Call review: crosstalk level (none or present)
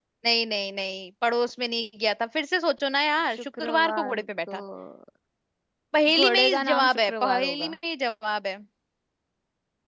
present